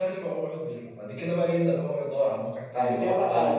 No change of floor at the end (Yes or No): No